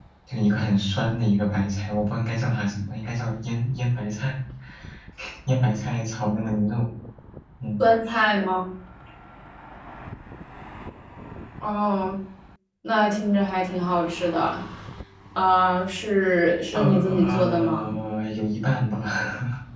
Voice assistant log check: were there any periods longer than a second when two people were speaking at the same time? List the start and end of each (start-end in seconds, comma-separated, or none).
16.7-17.9